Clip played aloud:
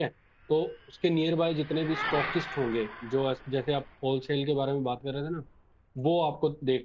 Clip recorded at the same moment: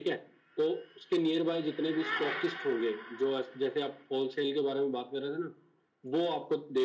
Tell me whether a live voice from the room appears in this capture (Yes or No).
No